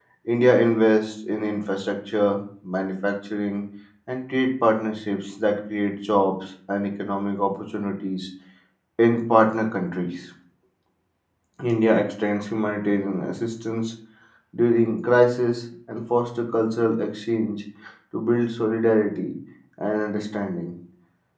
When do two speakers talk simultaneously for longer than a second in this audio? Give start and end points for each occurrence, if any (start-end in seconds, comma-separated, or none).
none